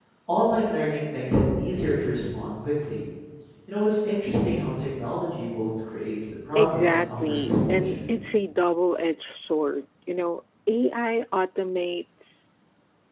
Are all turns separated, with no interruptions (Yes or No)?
No